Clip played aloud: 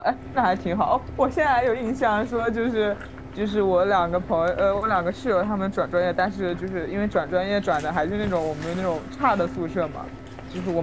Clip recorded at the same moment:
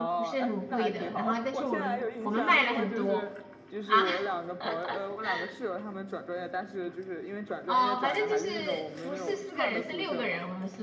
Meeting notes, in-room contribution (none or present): present